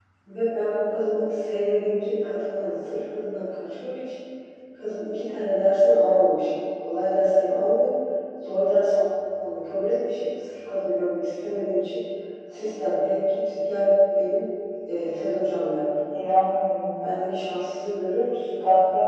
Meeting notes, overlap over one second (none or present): none